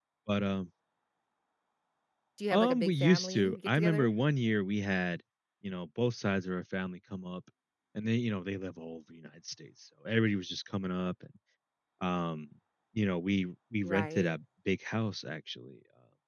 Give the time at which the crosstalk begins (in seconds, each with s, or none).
2.5 s